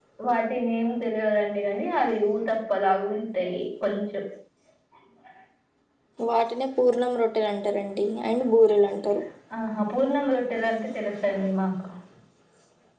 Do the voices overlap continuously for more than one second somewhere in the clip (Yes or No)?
No